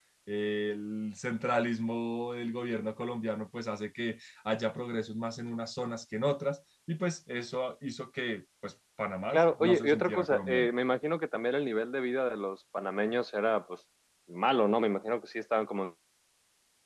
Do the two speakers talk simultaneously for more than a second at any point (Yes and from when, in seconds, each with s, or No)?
Yes, from 9.3 s